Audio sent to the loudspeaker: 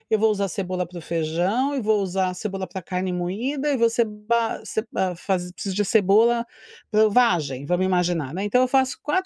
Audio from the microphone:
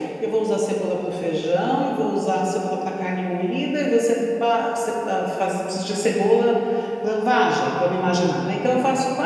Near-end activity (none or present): none